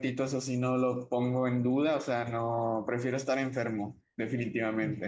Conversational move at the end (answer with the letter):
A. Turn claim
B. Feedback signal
A